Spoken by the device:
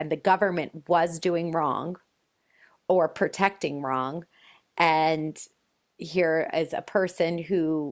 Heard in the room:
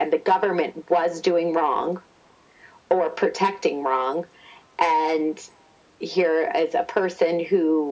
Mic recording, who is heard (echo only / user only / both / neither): echo only